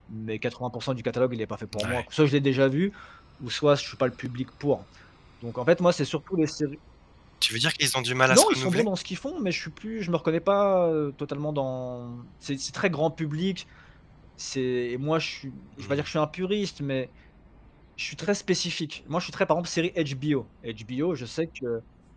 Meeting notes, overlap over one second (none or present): none